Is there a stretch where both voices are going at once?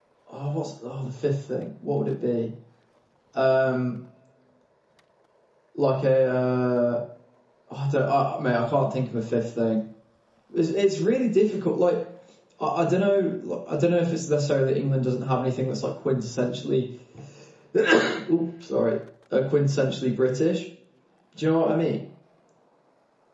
No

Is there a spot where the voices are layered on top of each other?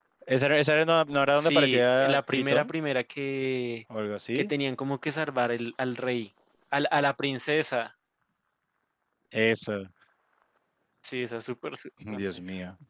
Yes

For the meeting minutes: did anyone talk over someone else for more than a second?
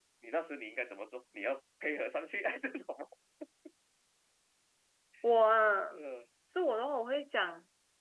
No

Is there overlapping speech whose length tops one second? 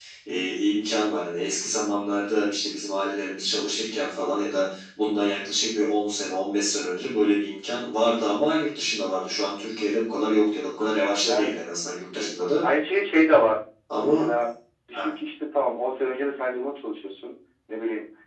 No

